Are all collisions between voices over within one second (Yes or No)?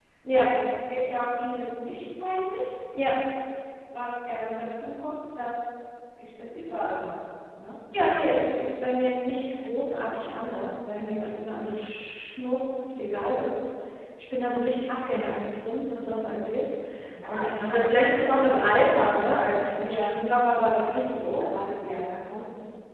No